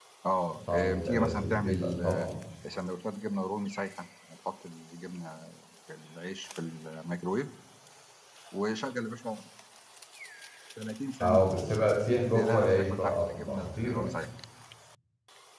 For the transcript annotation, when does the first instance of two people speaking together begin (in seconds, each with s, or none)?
0.7 s